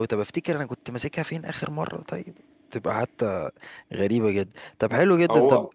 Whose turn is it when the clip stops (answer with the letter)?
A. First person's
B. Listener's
A